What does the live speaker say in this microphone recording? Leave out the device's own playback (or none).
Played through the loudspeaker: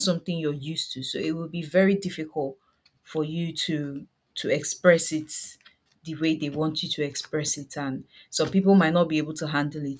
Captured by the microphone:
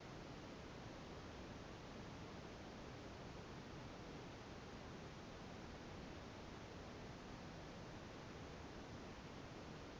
none